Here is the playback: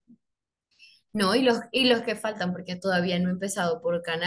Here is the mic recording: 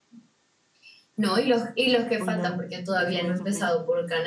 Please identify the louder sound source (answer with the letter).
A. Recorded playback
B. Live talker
A